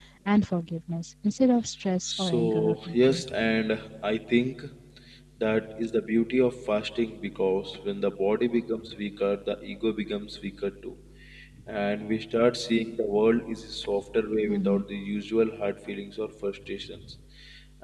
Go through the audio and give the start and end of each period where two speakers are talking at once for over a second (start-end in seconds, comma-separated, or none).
2.0-3.2